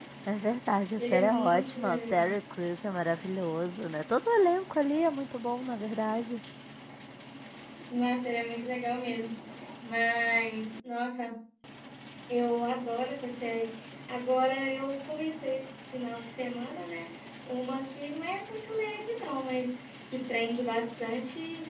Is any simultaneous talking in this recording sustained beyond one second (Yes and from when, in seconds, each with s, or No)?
Yes, from 0.9 s